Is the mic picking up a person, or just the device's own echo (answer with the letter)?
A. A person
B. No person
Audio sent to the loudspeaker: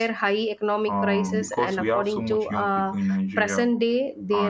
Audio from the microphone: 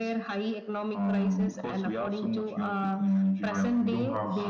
A